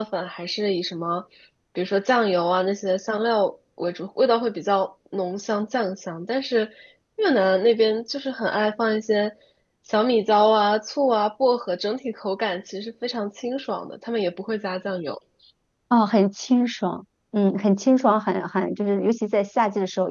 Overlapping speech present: No

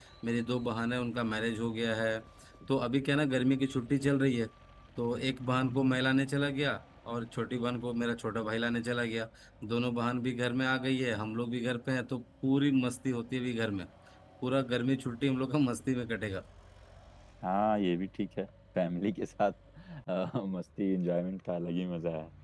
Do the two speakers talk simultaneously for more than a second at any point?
No

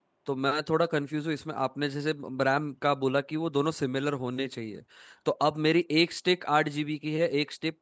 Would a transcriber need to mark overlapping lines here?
No

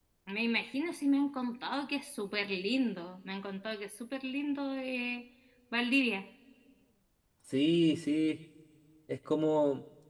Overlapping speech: No

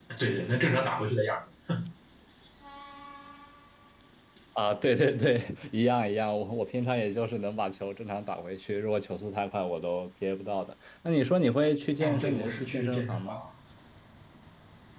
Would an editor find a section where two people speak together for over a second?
Yes, from 12.0 s

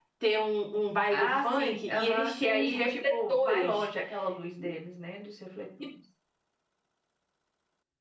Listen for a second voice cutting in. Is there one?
Yes, from 1.1 s

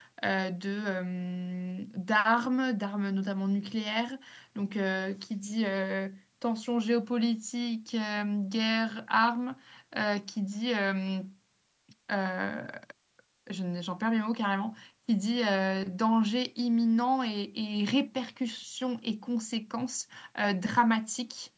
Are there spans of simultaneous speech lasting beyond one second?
No

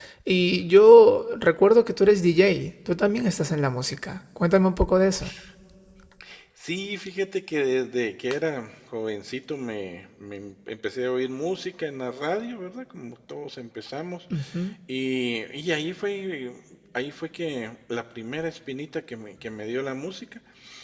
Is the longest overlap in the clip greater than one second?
No

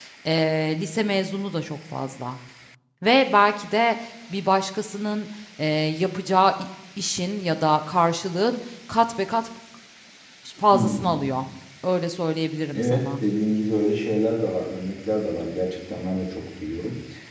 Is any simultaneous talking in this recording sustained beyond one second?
No

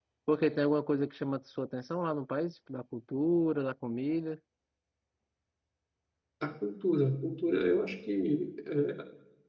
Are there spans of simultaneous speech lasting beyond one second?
No

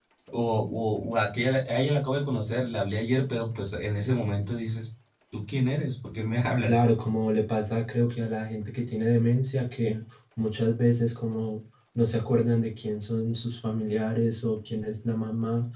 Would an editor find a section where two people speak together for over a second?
No

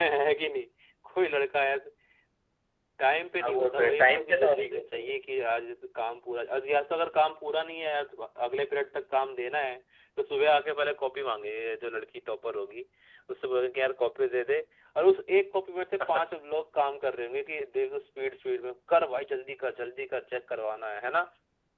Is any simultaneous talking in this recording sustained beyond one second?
Yes, from 3.4 s

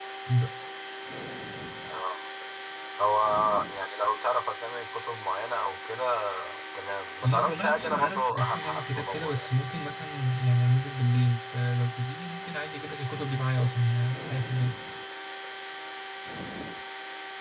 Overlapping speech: Yes, from 7.2 s

